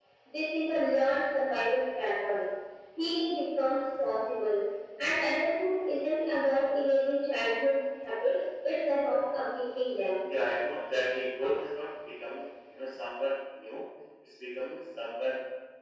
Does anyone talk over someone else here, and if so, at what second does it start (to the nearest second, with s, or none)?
none